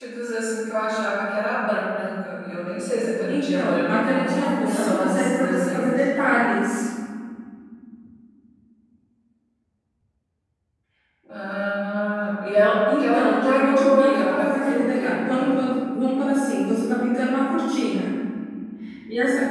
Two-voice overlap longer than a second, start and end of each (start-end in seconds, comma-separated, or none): 3.3-6.0, 13.0-15.6